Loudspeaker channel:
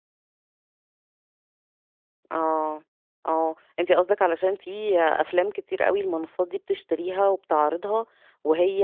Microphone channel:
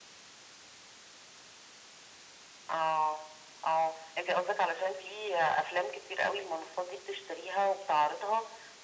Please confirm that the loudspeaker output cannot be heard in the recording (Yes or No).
No